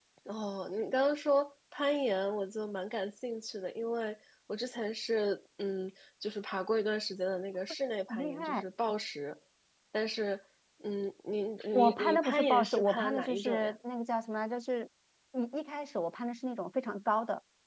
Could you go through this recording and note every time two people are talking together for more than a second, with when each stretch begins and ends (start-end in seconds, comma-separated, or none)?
11.7-13.8